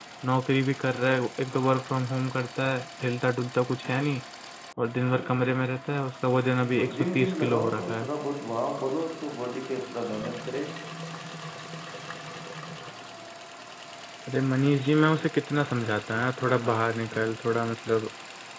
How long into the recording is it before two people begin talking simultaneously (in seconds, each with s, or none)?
6.8 s